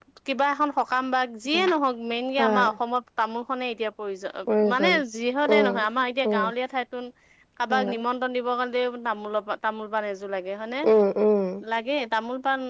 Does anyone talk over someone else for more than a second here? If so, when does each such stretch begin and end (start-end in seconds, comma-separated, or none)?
none